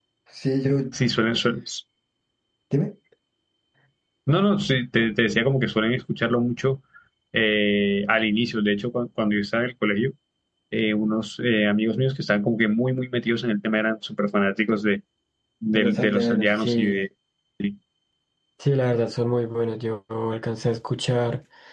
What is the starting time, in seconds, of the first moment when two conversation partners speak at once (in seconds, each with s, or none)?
15.7 s